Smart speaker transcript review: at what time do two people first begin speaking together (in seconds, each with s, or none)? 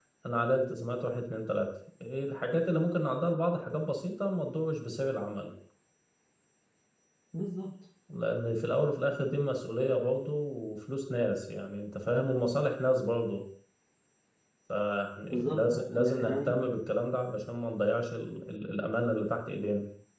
15.3 s